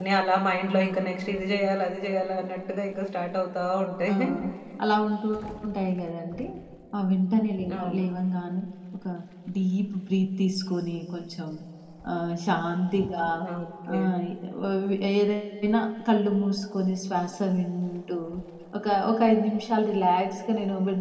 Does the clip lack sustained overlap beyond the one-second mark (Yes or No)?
Yes